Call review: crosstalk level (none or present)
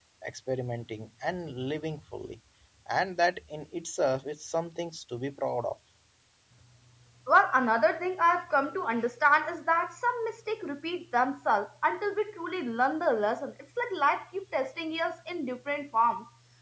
none